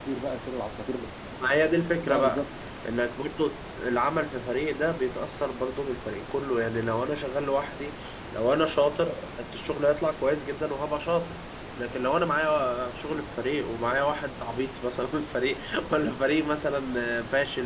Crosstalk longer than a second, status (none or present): none